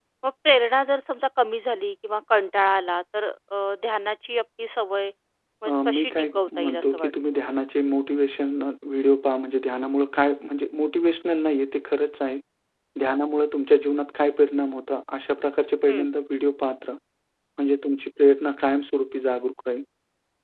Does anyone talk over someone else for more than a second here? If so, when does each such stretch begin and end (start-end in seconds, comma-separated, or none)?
5.7-7.6